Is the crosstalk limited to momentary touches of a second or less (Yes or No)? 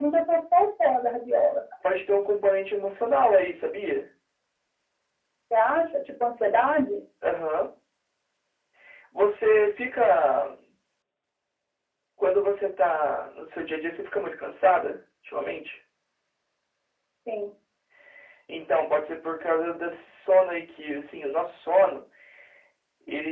Yes